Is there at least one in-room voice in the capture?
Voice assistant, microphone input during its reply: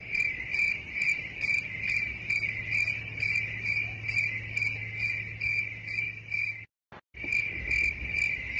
No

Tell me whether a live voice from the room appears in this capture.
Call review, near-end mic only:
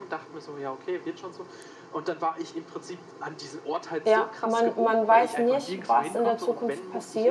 Yes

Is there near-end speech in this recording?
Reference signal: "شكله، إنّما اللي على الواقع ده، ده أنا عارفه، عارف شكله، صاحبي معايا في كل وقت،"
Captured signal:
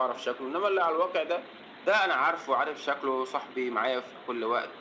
No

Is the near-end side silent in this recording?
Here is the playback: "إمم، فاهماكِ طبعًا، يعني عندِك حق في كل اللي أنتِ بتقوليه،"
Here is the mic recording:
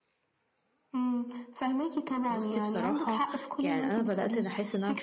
No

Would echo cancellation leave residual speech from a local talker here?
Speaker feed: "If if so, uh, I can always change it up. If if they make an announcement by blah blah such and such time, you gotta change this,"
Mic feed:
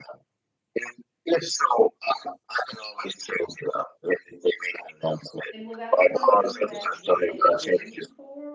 Yes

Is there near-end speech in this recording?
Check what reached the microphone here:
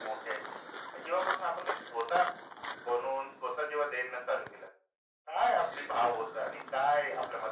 No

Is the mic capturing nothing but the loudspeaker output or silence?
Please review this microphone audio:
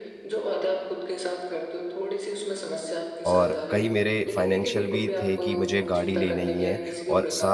No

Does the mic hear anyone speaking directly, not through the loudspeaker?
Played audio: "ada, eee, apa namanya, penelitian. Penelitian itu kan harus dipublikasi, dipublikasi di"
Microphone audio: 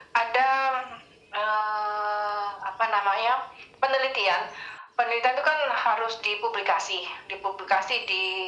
No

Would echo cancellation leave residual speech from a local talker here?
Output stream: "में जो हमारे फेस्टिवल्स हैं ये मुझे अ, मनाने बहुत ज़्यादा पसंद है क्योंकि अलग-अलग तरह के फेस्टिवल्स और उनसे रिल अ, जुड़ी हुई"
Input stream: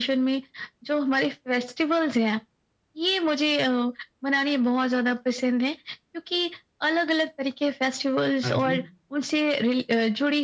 Yes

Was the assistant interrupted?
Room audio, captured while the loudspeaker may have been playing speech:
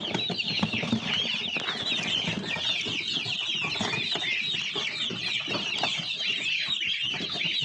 No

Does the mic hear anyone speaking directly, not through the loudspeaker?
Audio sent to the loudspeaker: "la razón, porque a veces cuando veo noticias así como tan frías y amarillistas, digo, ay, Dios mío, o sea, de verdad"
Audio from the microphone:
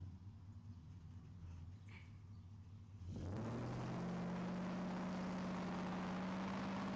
No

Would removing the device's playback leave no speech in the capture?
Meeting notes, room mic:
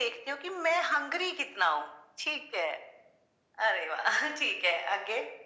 Yes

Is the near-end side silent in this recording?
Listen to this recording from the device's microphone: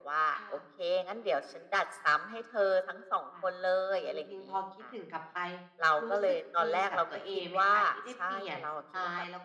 No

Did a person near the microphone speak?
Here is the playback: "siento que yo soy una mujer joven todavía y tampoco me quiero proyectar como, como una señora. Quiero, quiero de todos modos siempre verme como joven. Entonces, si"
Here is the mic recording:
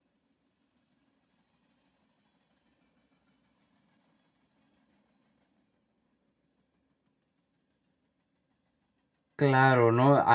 Yes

